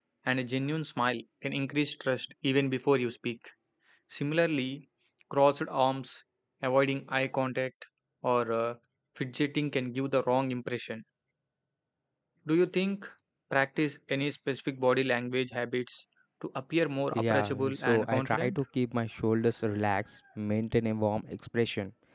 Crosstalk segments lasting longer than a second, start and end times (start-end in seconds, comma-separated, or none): 17.1-18.6